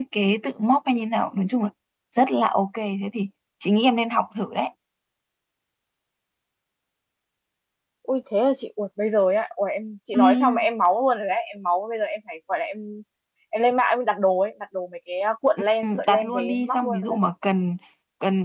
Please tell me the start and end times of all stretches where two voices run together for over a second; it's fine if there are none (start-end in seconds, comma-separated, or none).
15.8-17.2